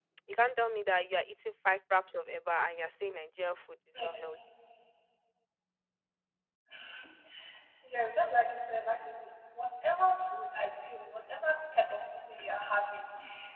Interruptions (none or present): none